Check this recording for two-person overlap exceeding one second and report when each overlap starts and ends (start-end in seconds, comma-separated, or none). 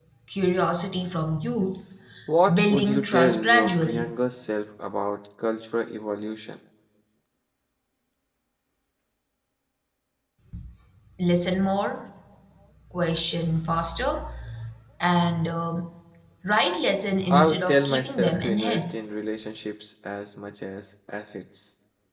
2.5-4.1, 17.3-18.9